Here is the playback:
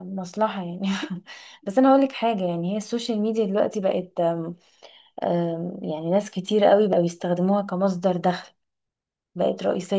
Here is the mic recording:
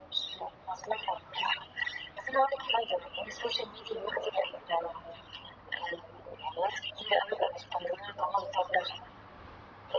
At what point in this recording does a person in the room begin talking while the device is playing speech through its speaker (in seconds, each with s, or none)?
none